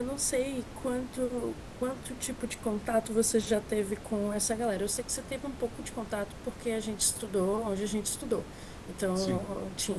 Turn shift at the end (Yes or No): No